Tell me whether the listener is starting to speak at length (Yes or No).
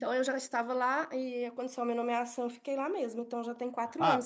Yes